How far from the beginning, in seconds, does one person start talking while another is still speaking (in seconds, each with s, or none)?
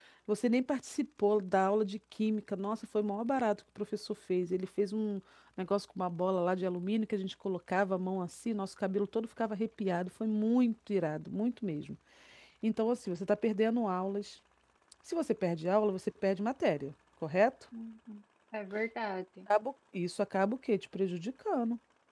none